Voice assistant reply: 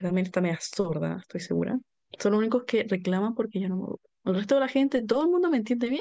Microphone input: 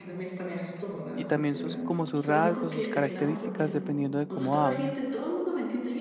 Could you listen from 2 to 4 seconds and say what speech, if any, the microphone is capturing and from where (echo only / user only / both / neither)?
both